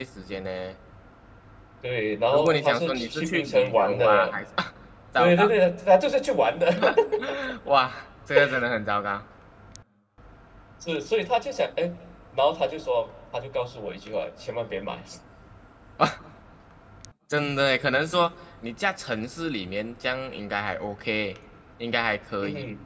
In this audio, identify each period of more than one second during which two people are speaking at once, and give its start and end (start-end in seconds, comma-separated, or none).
2.3-4.3